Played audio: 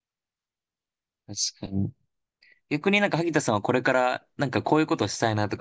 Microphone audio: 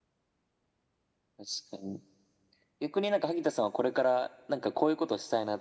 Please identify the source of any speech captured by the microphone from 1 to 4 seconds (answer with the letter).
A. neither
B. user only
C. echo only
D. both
C